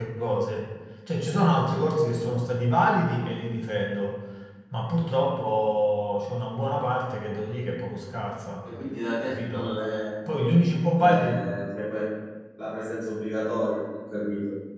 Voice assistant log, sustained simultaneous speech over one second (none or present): none